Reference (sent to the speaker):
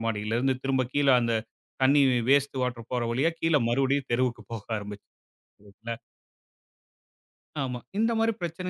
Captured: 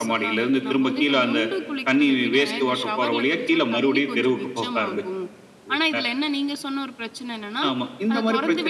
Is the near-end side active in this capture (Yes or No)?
Yes